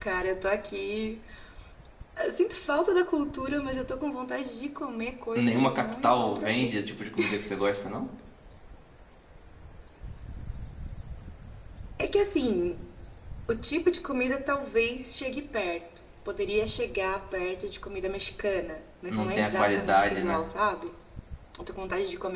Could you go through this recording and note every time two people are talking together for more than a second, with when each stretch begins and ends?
5.3-6.8, 19.1-20.4

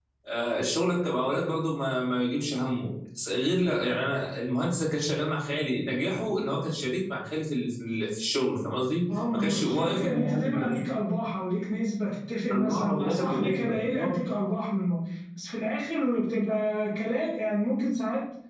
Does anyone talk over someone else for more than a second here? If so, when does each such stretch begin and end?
9.1-10.8, 12.5-14.1

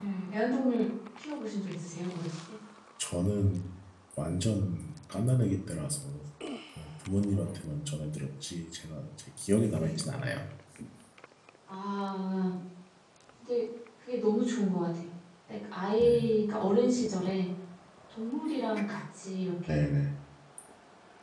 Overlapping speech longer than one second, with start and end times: none

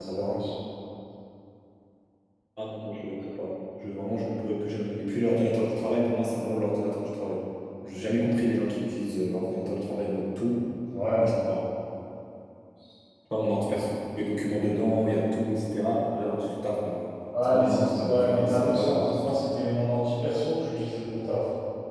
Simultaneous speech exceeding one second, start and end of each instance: 17.4-19.4

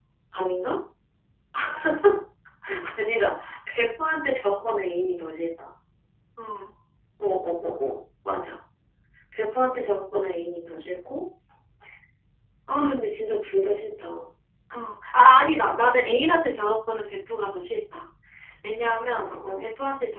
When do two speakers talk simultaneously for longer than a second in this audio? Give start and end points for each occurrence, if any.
none

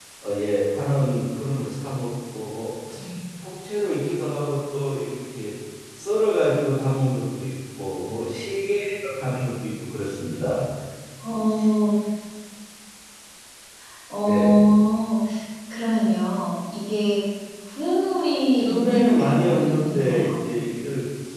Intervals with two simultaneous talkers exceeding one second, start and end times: 18.6-20.4

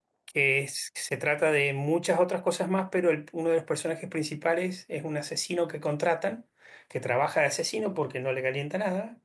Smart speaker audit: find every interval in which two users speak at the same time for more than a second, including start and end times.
none

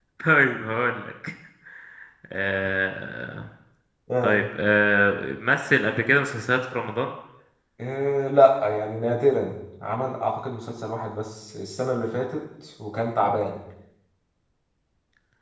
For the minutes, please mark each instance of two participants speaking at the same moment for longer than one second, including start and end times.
none

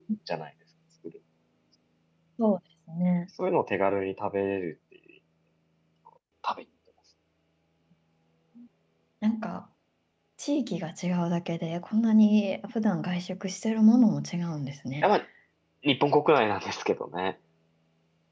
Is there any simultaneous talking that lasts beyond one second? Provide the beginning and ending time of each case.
none

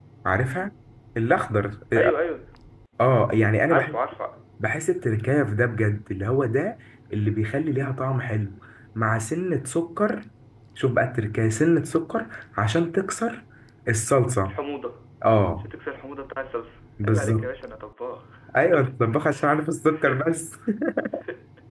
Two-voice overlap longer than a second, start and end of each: none

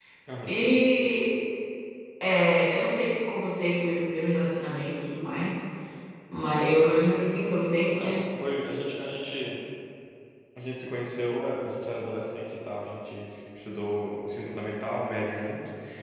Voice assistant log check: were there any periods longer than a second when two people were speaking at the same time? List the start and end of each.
none

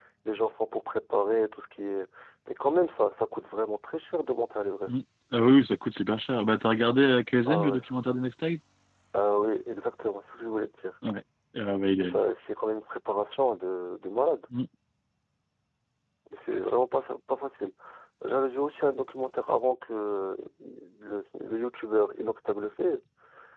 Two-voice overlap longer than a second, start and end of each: none

